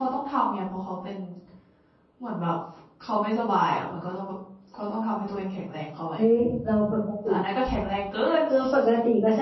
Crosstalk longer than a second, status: none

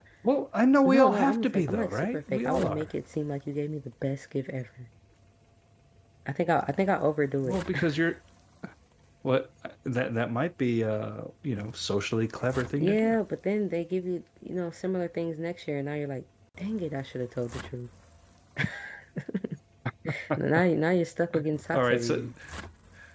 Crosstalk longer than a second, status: present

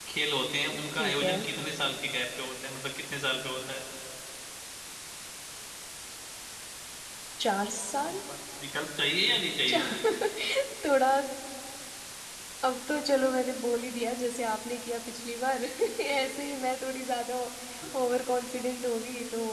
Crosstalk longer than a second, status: none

